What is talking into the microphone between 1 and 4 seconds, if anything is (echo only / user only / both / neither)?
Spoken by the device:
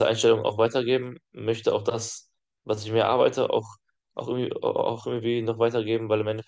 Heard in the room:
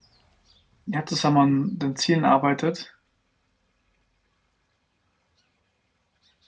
user only